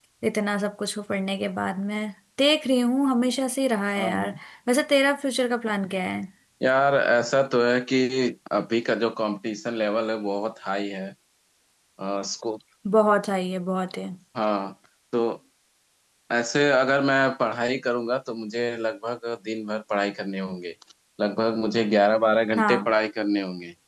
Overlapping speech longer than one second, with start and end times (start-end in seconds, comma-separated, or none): none